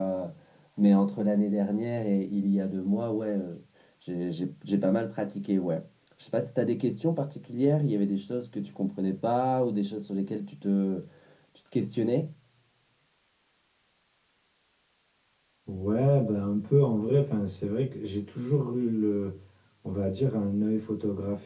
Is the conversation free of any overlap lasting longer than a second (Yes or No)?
Yes